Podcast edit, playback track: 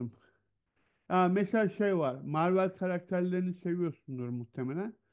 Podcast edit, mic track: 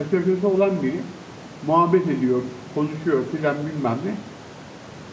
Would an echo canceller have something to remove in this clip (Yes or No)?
No